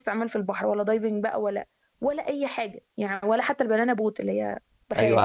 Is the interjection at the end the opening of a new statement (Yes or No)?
Yes